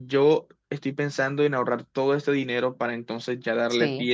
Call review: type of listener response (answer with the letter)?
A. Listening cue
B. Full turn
B